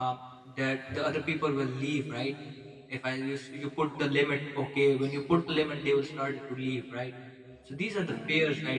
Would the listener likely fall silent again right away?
Yes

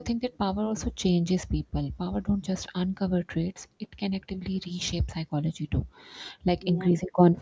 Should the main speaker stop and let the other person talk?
No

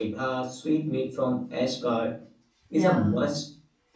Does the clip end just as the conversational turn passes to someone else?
No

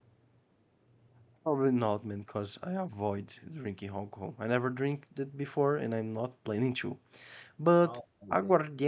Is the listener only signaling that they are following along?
Yes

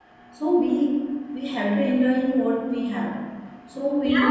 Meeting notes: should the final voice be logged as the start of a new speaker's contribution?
Yes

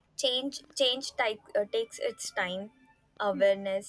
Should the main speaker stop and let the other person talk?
No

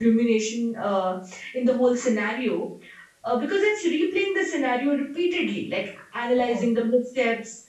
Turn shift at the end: No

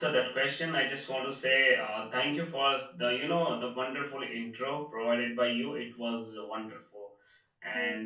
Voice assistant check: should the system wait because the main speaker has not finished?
Yes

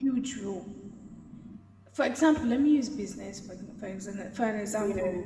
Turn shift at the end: No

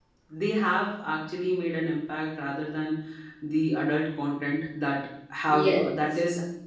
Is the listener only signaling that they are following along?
Yes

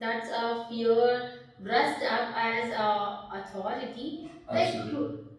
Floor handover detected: No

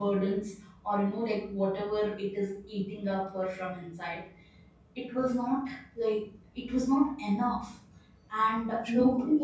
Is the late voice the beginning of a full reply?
No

